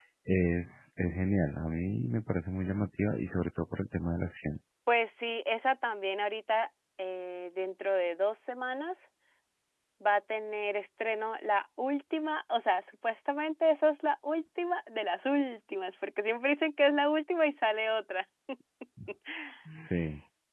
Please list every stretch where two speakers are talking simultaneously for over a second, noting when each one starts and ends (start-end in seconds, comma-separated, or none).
none